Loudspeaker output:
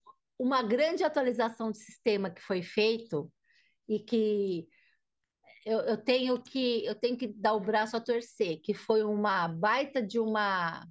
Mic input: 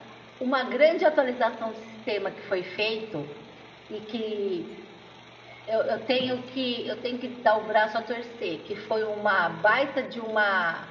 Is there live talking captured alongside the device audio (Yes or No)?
No